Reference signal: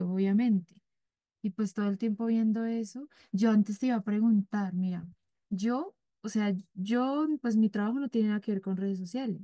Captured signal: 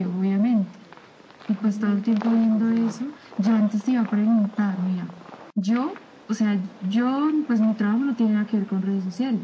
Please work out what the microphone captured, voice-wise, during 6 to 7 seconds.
echo only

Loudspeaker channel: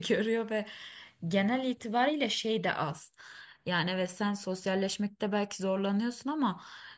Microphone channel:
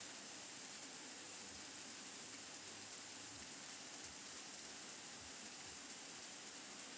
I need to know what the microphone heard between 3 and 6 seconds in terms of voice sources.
neither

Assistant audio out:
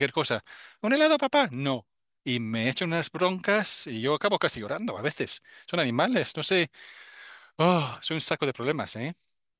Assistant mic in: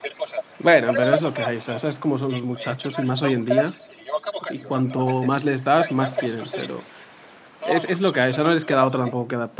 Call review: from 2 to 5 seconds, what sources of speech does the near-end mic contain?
both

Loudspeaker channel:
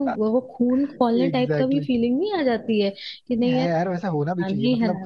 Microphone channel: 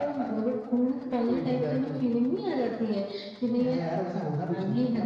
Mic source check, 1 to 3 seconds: echo only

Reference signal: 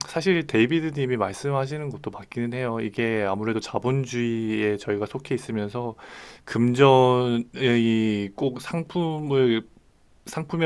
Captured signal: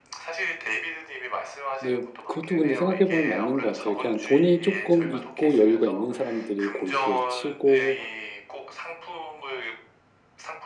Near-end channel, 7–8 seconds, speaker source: both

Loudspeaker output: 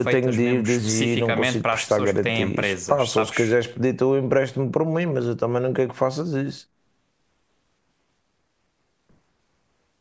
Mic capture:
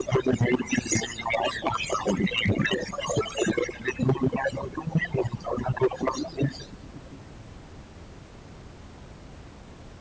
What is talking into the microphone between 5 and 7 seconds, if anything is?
echo only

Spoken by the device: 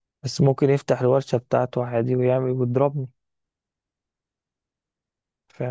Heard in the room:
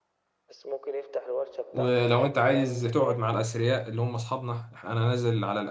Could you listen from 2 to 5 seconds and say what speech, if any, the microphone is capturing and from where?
both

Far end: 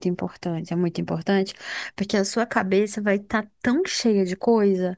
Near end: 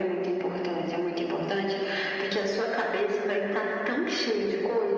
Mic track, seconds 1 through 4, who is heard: echo only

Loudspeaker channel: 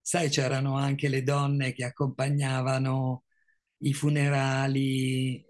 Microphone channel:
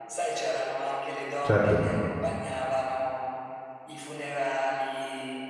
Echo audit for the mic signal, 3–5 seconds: echo only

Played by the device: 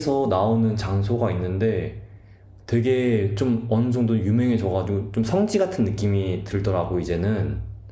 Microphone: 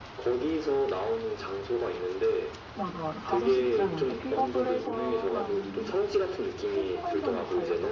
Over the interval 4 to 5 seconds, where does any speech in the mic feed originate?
both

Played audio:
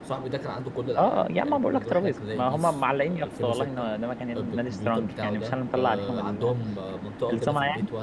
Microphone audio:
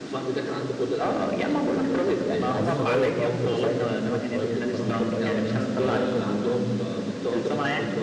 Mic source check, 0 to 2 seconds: echo only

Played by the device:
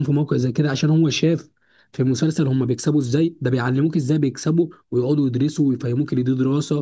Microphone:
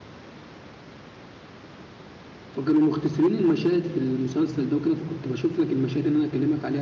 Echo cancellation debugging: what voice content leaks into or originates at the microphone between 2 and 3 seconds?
user only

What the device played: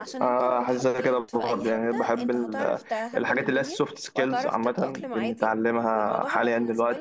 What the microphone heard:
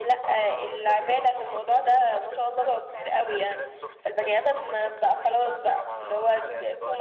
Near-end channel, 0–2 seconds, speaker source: both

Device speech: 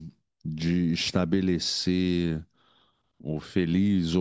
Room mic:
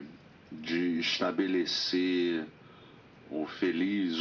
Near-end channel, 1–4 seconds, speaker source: echo only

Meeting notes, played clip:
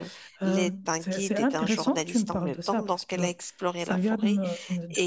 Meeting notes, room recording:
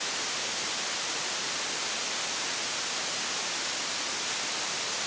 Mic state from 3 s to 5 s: neither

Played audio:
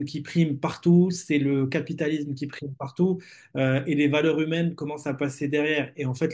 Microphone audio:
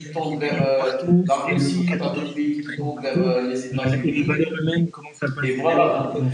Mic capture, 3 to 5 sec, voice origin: both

